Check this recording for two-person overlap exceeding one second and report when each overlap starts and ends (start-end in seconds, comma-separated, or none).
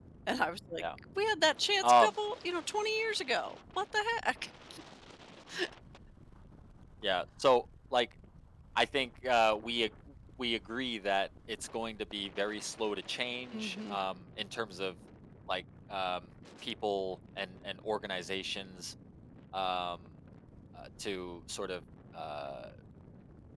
none